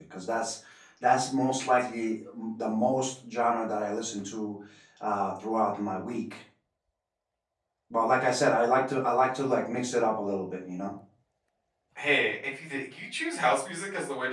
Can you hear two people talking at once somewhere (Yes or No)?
No